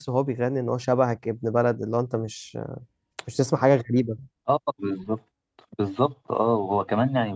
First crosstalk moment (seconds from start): none

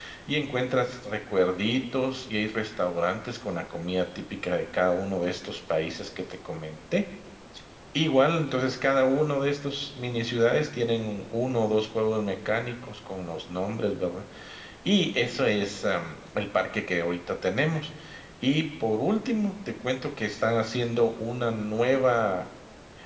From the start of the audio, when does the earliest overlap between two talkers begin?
none

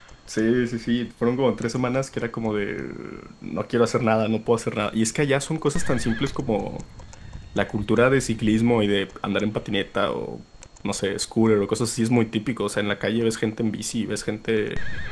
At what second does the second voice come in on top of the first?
none

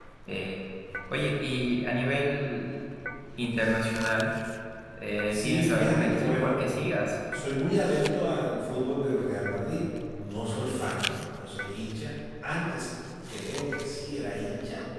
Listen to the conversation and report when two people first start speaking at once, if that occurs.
5 s

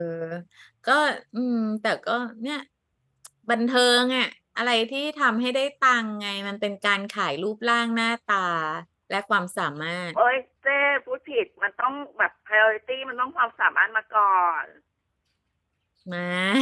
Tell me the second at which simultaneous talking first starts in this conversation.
none

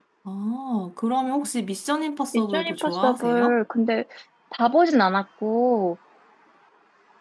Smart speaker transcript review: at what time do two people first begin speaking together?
2 s

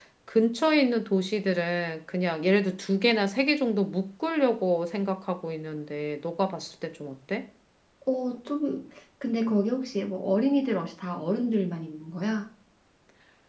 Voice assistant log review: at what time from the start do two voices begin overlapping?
none

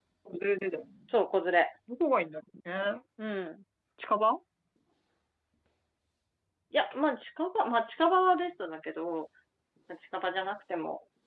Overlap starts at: none

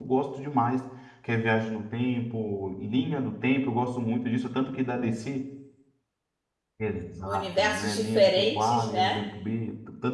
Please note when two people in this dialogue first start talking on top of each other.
7 s

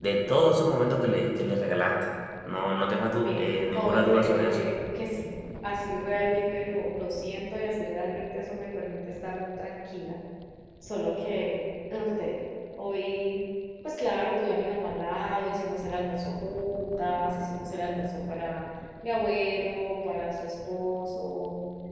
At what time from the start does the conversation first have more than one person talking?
3 s

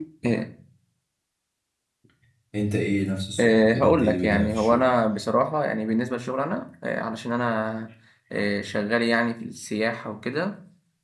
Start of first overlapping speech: 3 s

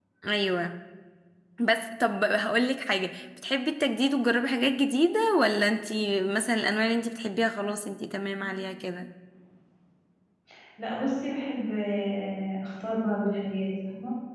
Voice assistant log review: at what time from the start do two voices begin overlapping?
none

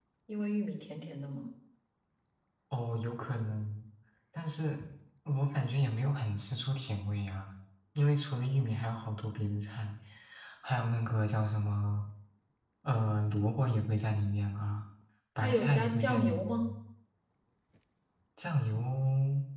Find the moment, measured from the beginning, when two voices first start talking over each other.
15 s

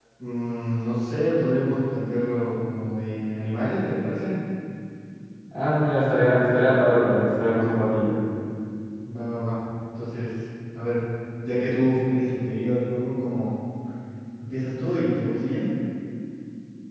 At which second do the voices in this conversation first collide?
none

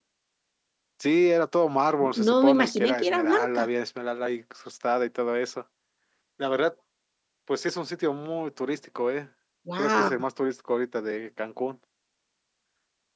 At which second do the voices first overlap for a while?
2 s

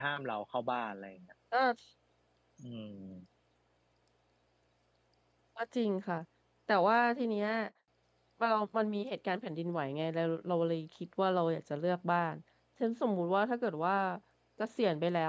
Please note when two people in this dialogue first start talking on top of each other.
none

